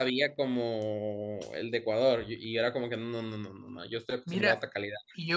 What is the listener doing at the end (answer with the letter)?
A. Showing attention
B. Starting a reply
B